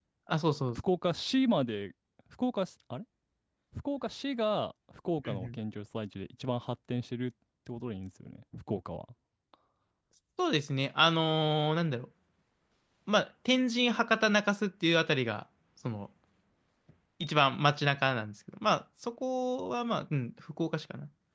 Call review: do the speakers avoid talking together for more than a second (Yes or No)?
Yes